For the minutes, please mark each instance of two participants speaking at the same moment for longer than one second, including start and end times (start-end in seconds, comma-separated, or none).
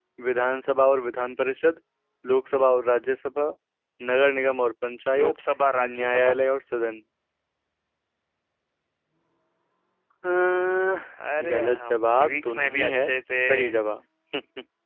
11.4-13.1